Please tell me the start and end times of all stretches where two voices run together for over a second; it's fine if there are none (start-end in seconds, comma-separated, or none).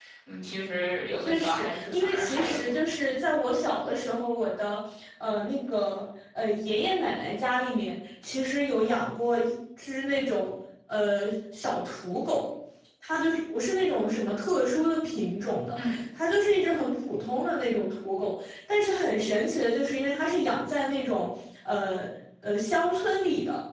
1.2-2.8